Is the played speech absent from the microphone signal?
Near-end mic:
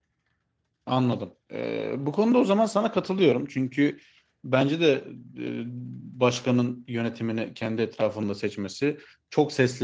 Yes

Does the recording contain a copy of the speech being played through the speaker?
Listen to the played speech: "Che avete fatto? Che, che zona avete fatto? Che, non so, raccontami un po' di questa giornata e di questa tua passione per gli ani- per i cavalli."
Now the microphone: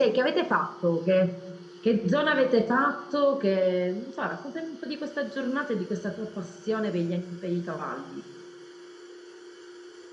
Yes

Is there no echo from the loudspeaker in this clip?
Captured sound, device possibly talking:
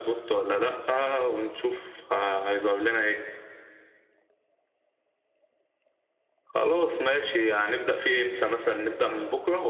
No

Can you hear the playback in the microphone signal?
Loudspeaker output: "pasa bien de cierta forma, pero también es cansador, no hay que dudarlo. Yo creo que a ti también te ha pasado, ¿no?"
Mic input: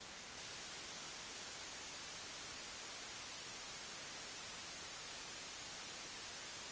No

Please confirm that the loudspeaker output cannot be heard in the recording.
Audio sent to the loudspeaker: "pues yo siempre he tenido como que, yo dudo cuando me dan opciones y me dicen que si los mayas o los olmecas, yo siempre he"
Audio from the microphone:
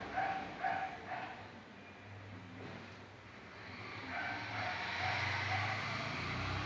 Yes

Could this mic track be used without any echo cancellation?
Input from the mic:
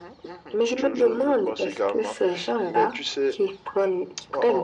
No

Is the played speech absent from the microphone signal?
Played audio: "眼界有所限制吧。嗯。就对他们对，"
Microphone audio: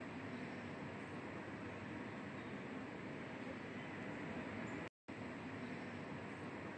Yes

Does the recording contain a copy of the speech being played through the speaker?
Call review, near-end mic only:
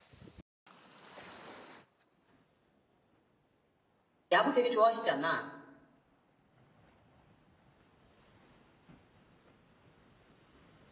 No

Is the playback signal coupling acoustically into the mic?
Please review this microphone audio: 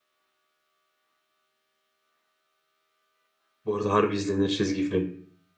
No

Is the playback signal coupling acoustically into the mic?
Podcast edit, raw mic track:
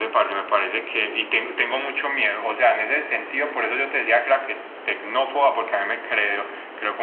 Yes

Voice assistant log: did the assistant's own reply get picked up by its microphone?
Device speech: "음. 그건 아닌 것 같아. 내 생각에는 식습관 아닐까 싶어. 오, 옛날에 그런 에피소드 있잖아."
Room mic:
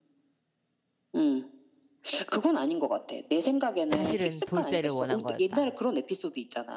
Yes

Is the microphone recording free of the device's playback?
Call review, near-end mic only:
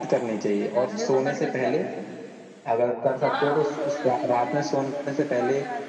No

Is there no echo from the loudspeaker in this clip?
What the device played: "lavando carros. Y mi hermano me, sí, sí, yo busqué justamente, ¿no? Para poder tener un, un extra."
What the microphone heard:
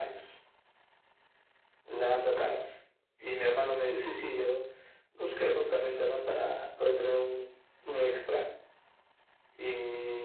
No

